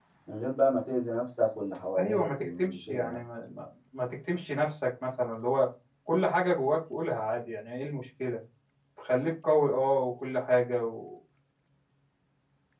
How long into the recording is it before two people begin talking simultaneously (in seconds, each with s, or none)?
2.0 s